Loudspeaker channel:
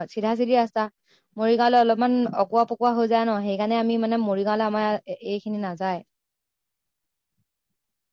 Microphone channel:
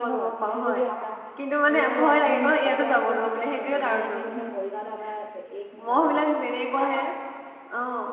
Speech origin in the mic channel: both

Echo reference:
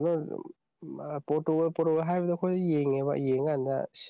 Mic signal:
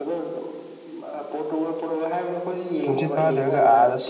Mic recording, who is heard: both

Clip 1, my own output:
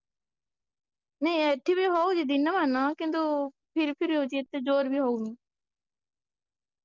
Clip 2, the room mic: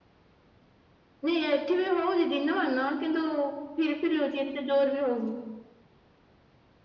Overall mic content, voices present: echo only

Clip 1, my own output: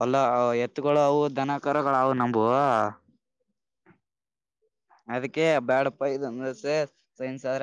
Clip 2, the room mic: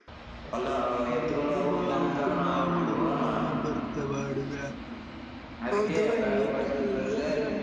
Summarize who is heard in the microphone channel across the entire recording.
both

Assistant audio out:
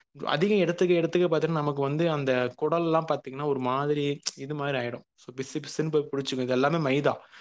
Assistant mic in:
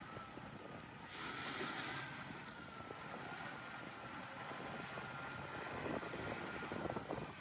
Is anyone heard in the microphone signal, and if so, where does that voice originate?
neither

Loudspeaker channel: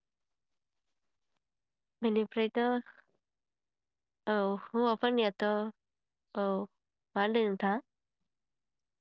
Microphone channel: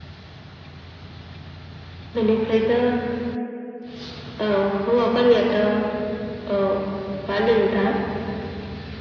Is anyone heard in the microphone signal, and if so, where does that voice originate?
echo only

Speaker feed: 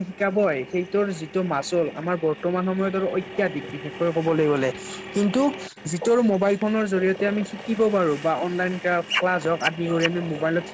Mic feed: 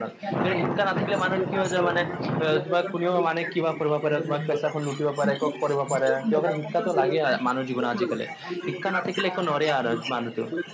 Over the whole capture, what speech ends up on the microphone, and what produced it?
both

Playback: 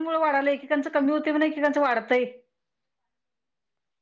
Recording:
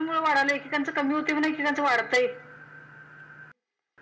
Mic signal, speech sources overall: echo only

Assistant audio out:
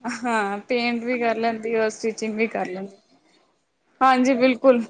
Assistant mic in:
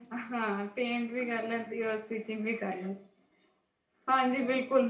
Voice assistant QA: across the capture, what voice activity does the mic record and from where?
echo only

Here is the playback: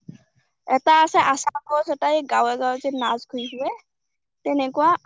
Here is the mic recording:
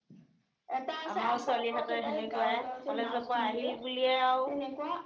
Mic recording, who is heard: both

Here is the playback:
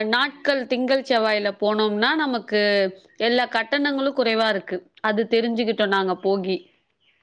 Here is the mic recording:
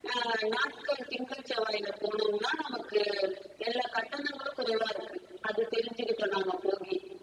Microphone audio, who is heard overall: echo only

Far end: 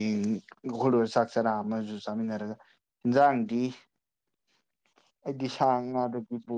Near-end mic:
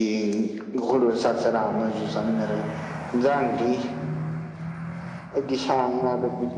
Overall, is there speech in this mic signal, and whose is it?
echo only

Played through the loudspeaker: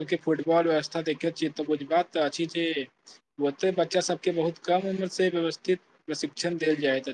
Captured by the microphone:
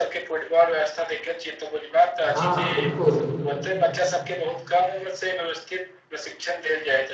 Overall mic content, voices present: both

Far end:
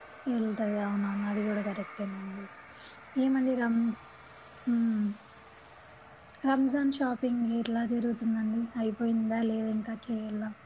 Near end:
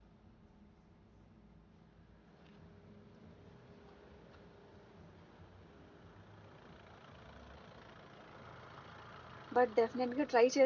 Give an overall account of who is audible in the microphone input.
user only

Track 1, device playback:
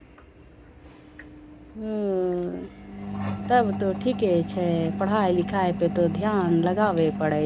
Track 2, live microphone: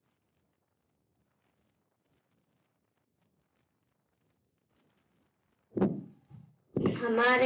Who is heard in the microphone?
user only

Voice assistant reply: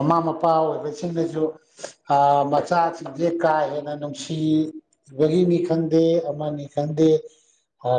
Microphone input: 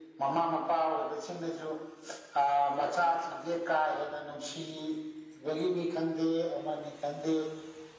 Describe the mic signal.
echo only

